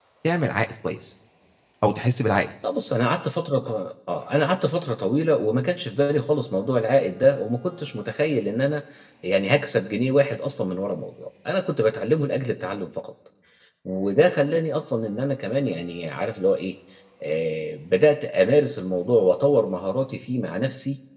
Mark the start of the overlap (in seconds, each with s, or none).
none